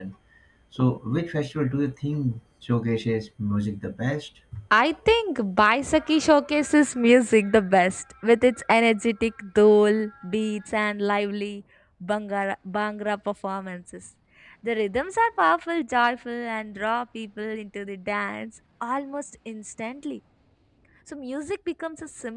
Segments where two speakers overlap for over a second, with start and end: none

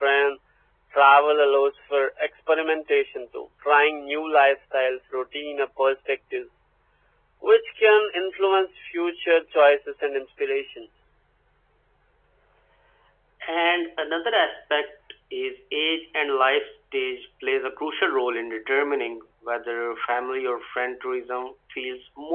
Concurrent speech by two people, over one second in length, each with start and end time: none

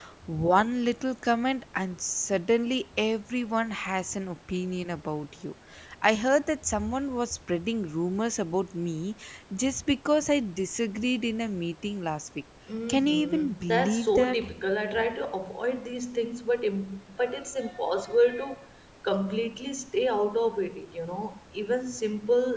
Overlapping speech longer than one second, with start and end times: 12.9-14.4

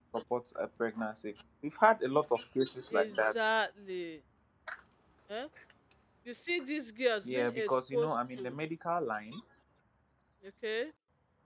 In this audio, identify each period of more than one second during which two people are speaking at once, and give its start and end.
7.2-8.5

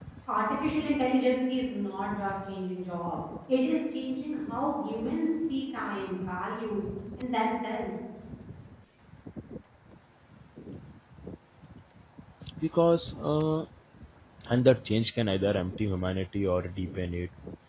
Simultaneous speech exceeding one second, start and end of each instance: none

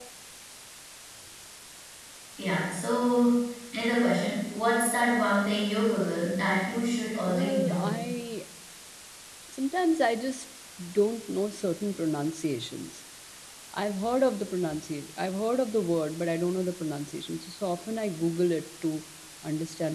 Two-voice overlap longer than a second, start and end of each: 6.2-8.0

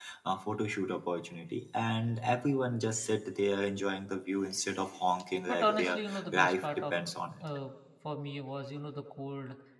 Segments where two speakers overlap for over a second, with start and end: 5.5-7.0

